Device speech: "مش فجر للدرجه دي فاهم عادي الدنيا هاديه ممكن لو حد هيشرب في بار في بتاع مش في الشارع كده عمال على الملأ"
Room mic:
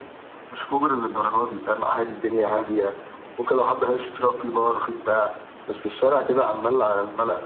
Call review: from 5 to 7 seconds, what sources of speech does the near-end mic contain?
echo only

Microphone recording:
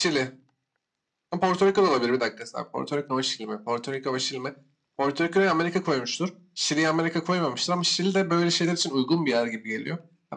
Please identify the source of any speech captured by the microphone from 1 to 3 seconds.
echo only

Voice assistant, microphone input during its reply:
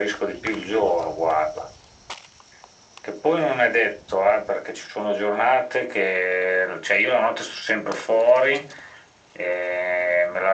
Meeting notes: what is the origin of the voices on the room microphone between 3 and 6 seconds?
echo only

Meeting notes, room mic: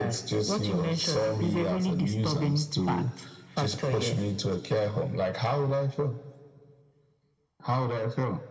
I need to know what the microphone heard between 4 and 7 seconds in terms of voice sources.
echo only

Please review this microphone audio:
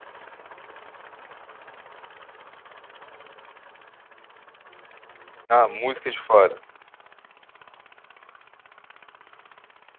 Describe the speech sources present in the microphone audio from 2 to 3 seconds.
neither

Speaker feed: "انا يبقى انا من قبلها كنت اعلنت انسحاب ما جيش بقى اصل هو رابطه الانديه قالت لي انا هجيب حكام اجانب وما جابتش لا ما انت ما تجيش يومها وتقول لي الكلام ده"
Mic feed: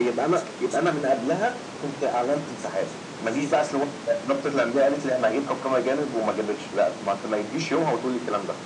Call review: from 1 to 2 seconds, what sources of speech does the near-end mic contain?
echo only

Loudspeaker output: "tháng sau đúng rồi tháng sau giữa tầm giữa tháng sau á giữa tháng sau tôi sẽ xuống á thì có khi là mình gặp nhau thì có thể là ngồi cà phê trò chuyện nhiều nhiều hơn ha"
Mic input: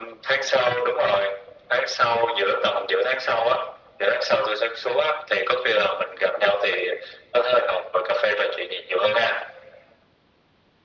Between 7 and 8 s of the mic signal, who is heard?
echo only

